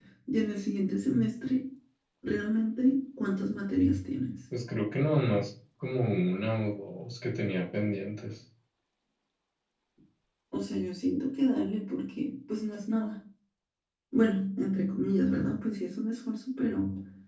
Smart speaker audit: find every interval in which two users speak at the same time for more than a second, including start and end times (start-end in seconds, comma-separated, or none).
none